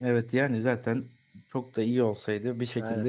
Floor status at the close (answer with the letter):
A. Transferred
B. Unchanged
B